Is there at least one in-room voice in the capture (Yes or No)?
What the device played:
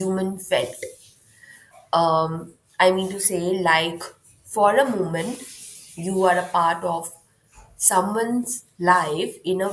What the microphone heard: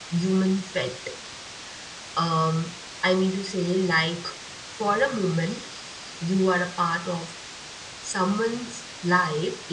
No